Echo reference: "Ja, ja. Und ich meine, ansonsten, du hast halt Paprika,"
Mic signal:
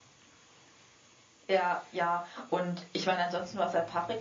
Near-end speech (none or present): none